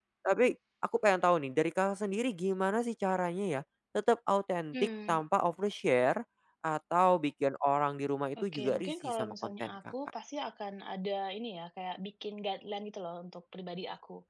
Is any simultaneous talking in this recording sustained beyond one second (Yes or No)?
Yes